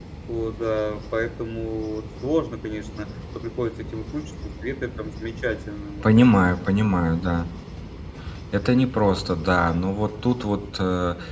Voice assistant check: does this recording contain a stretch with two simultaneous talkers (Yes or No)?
No